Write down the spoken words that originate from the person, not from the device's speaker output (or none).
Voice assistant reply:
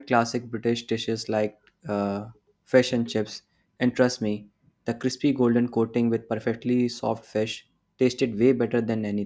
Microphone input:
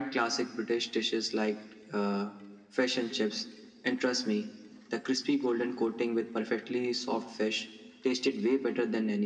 none